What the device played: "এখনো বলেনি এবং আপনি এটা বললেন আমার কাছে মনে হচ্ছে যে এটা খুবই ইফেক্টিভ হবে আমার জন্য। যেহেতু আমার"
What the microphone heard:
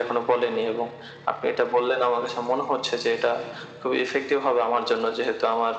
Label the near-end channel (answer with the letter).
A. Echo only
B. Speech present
A